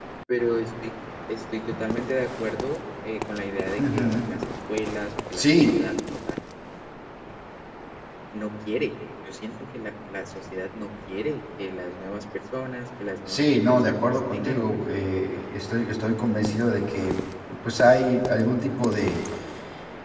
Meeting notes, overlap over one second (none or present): present